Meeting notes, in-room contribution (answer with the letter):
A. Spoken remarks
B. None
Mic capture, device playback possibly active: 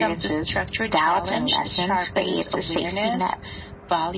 B